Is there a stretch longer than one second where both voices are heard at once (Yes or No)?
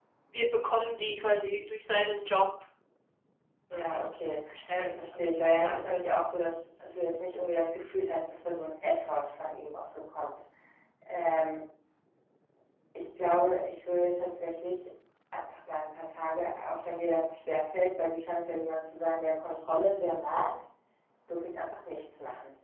Yes